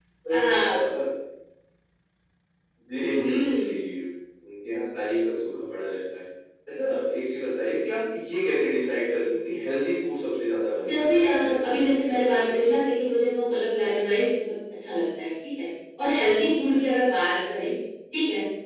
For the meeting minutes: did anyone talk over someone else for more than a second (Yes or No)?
Yes